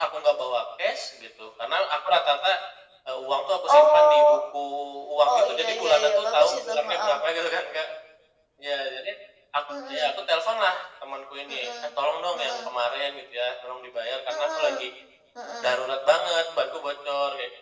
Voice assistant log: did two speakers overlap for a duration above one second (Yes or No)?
Yes